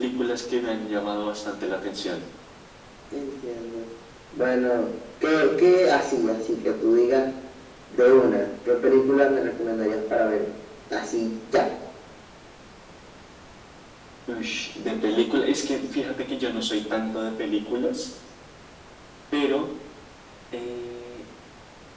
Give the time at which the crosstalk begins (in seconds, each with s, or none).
none